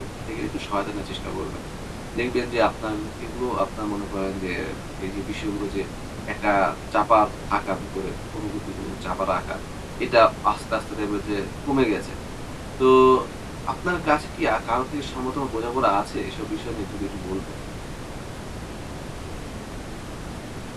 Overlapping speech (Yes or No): No